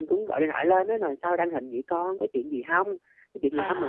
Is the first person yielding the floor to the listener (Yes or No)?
No